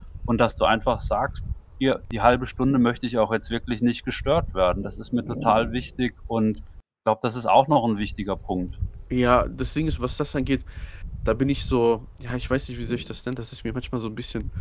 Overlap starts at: none

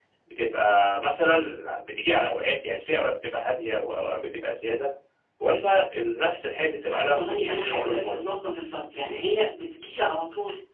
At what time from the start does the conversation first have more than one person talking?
6.9 s

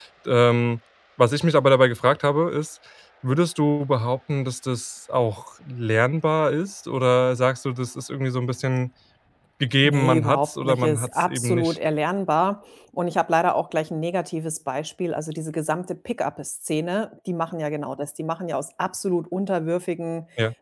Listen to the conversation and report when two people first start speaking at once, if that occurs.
9.8 s

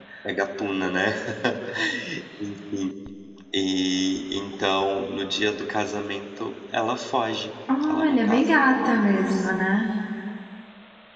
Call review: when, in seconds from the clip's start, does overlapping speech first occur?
7.9 s

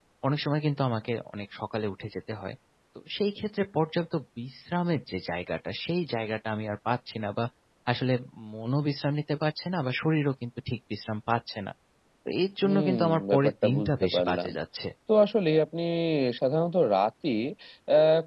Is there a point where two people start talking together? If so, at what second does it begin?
12.6 s

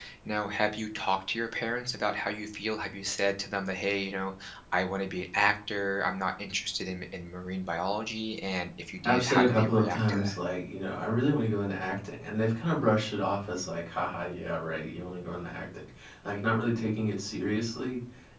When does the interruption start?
9.0 s

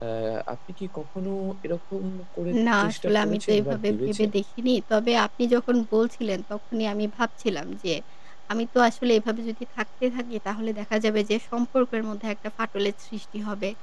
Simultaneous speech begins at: 2.8 s

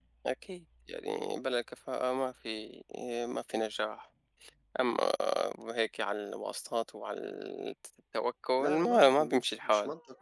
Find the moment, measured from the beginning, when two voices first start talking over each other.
8.6 s

